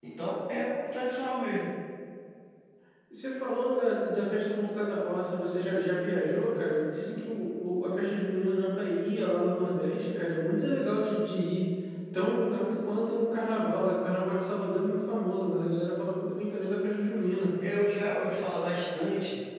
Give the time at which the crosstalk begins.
none

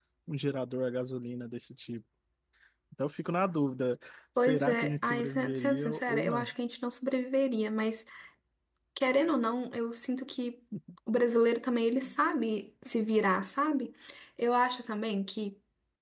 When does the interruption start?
4 s

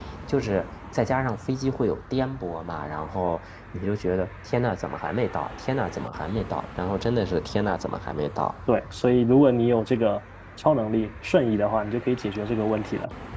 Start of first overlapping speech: none

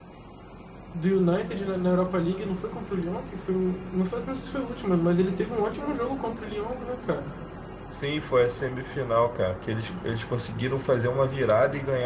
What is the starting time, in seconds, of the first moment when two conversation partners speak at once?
none

